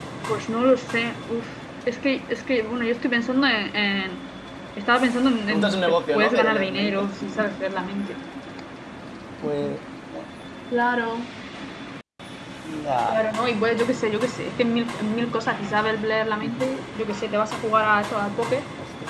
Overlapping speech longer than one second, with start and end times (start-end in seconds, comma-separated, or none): 5.5-7.1